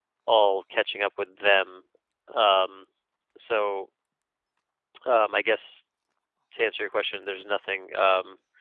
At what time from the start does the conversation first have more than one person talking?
none

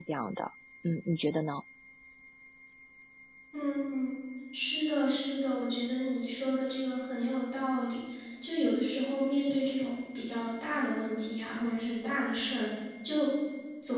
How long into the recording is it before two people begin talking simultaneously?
none

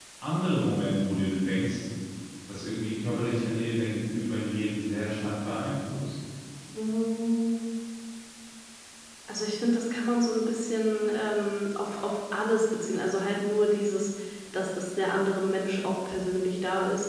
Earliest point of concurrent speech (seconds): none

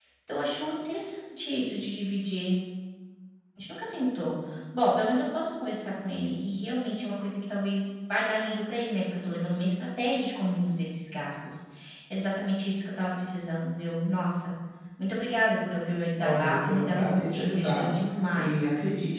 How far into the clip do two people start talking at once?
16.2 s

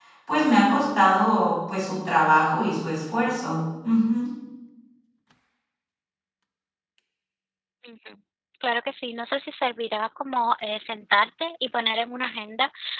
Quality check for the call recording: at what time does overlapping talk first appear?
none

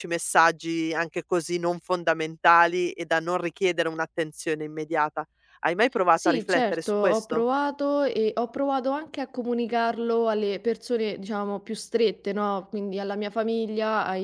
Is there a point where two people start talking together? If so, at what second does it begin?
6.2 s

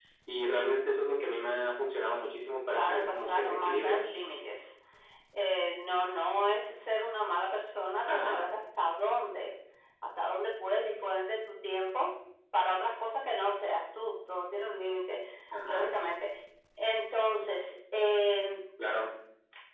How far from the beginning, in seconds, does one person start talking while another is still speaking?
2.7 s

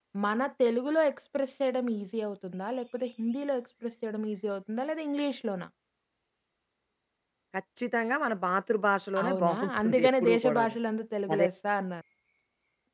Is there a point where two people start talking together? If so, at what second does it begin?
9.2 s

